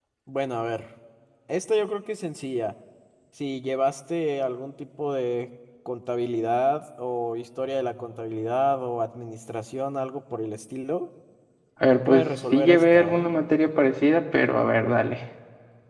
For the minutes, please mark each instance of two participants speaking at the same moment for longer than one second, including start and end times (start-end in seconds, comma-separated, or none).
12.1-13.3